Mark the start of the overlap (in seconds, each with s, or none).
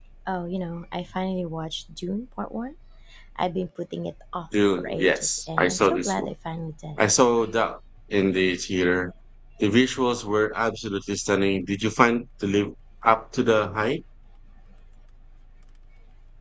4.8 s